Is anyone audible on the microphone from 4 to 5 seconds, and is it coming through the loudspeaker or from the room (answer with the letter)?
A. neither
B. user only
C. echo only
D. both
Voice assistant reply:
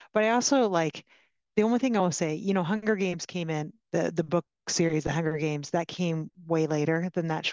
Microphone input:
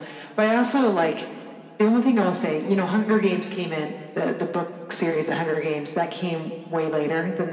C